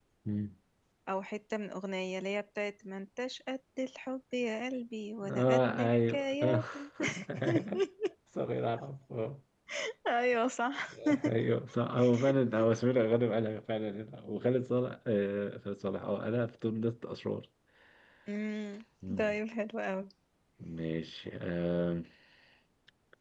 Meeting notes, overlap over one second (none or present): present